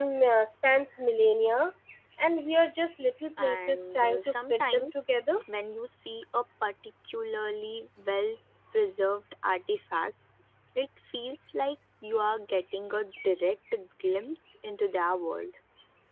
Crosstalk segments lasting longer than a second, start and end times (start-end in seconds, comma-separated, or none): 3.4-5.0